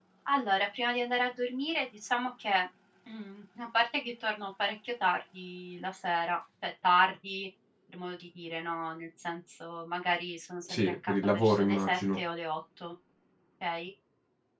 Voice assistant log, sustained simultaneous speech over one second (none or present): present